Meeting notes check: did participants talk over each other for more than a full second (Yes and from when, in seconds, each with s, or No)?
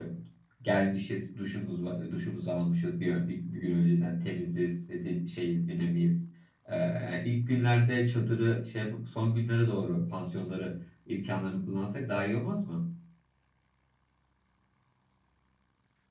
No